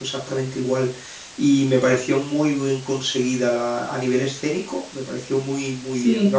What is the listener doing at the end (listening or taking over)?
listening